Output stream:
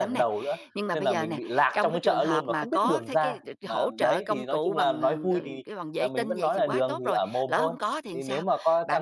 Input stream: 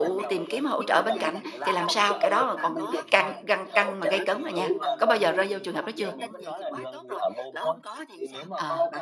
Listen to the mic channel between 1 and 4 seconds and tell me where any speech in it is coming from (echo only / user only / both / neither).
both